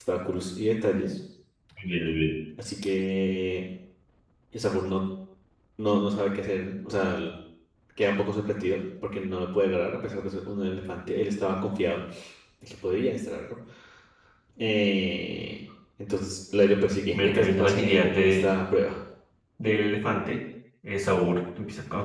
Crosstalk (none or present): present